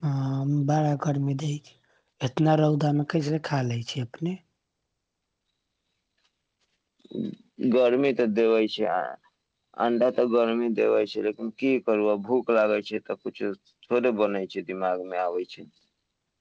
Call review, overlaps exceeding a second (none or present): none